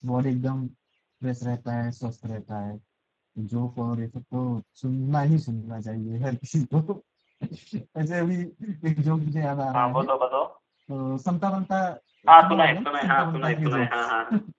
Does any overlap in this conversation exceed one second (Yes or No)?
Yes